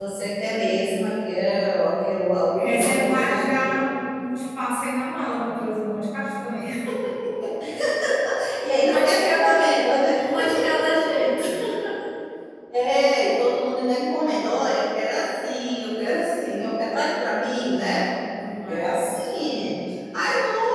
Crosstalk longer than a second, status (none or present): present